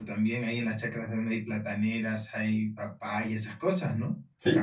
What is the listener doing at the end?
taking over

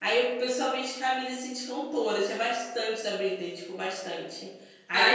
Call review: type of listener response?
listening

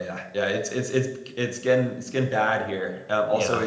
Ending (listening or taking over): listening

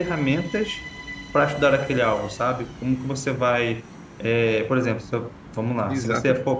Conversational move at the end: taking over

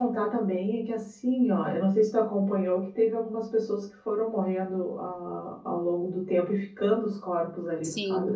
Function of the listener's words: taking over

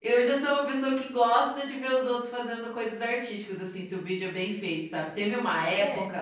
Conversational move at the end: listening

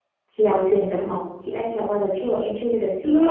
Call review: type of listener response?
taking over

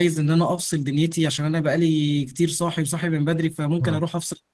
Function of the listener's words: listening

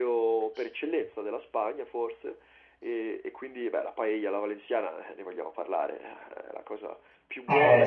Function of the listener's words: listening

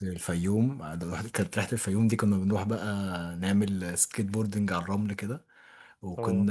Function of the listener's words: listening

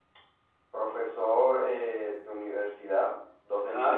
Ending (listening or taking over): listening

